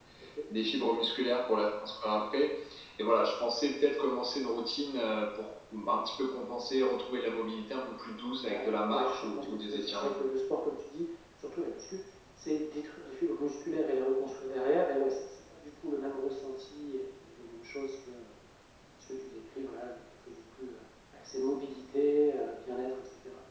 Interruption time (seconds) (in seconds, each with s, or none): 8.3 s